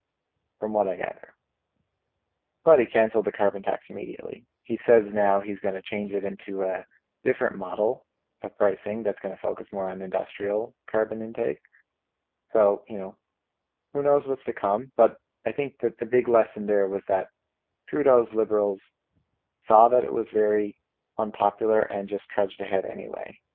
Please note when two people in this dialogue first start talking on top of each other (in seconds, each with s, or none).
none